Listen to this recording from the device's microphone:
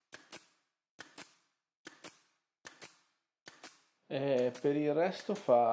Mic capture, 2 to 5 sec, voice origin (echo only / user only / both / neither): user only